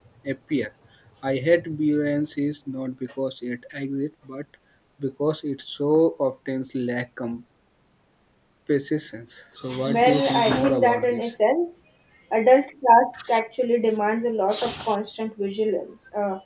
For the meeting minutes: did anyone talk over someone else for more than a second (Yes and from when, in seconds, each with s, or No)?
Yes, from 9.9 s